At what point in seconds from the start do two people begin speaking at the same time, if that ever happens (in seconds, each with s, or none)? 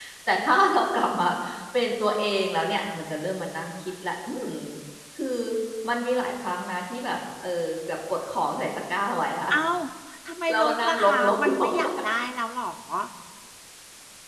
10.5 s